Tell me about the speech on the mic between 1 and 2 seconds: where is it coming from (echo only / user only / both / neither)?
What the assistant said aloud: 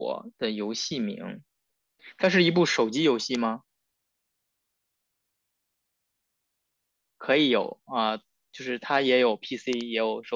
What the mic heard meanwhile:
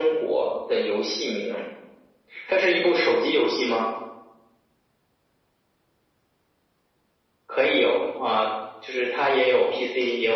echo only